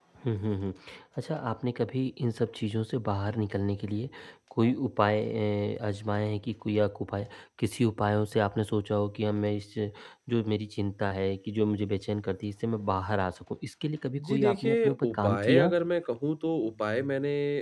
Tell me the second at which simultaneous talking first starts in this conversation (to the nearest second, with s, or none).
14 s